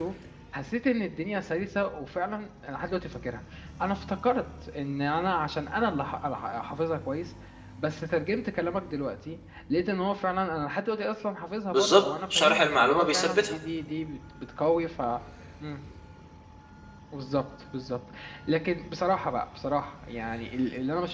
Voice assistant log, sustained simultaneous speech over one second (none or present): present